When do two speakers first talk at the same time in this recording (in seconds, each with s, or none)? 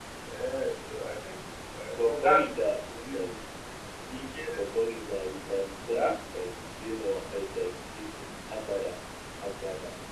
2.0 s